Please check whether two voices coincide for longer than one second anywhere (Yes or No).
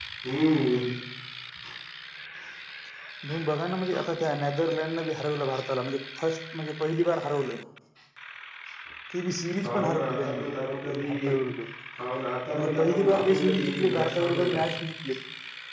Yes